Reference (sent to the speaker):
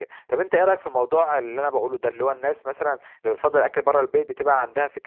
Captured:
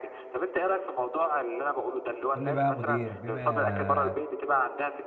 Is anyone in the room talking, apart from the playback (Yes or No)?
Yes